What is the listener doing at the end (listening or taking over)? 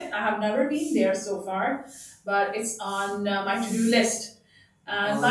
taking over